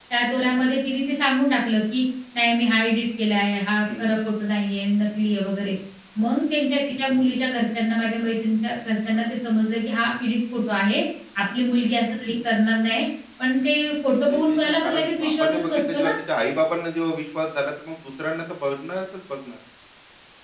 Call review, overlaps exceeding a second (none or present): present